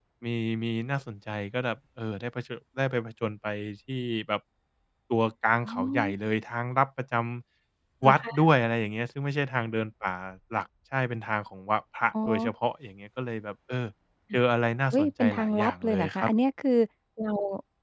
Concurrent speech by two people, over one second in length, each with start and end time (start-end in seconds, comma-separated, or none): 14.9-16.3